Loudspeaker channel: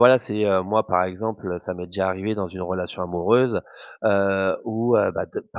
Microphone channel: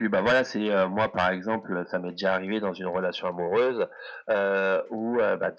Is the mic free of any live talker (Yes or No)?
Yes